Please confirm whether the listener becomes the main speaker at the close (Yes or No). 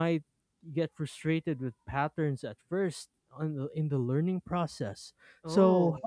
No